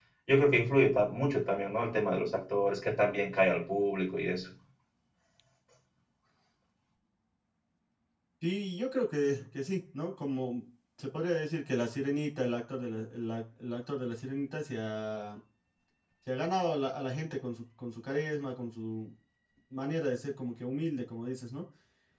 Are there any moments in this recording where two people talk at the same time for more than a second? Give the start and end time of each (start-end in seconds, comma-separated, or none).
none